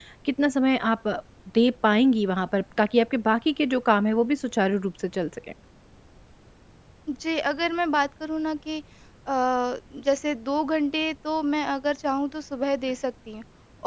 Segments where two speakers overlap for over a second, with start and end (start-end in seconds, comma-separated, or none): none